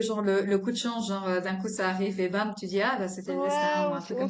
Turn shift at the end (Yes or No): Yes